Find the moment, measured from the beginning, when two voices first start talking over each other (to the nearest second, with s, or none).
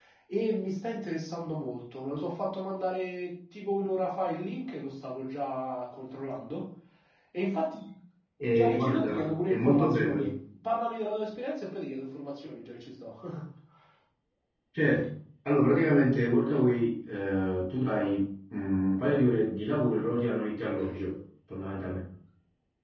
9 s